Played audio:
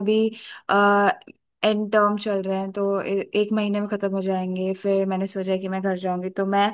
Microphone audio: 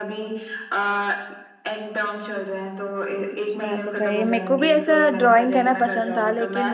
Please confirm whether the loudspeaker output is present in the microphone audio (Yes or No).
Yes